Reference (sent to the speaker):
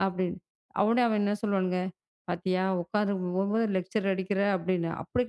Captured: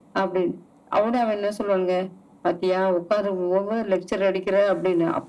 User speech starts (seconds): none

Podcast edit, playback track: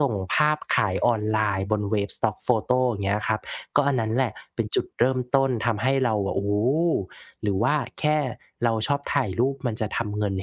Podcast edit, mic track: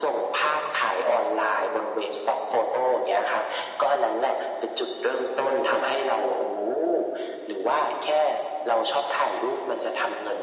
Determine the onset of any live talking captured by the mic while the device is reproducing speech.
none

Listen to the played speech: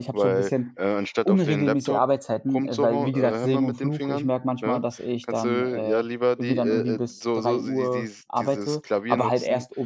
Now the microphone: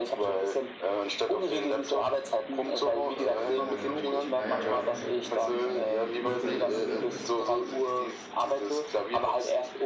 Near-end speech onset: 3 s

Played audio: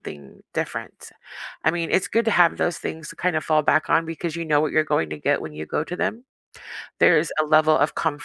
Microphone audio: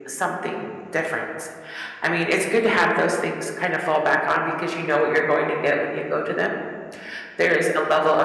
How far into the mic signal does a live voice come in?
none

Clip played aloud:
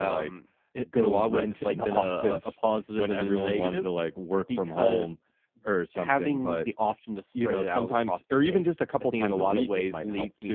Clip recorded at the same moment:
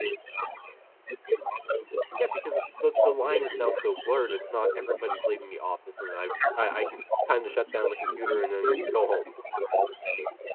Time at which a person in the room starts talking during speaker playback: 2 s

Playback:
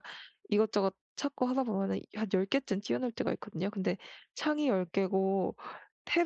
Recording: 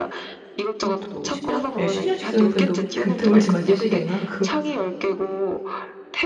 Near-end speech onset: 1 s

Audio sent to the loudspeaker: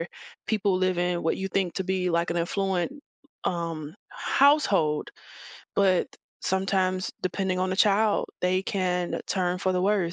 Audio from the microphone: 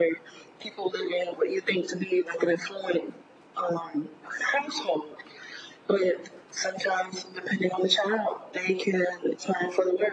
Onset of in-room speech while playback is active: none

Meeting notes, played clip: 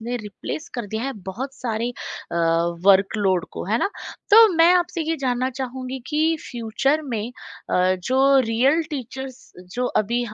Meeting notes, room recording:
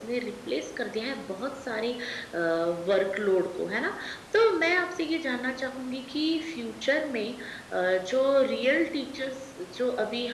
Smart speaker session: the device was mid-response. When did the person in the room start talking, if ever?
none

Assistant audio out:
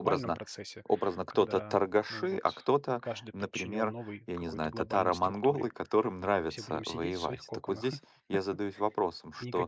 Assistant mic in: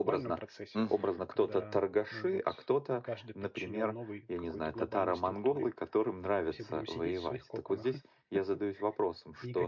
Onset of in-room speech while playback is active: 1 s

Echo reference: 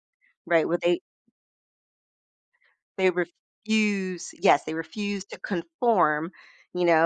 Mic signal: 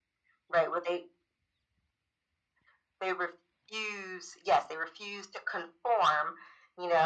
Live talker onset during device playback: none

